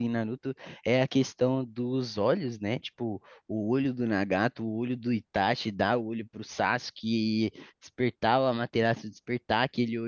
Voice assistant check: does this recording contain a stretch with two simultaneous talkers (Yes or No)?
No